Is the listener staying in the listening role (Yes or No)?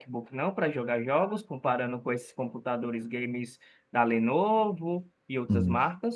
No